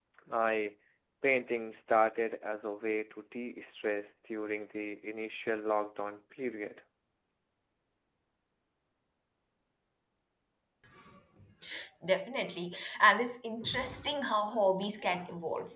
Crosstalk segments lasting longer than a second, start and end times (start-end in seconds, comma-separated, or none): none